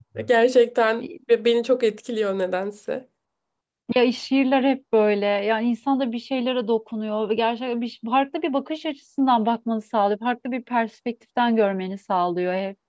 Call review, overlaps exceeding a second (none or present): none